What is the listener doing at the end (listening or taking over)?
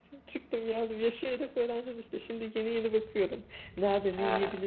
listening